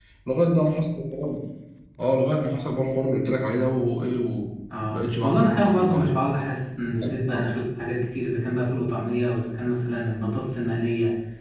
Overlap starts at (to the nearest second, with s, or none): 5 s